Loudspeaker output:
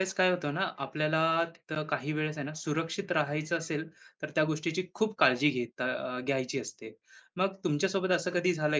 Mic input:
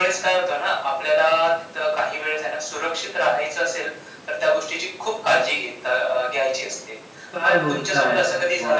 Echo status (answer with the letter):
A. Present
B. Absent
A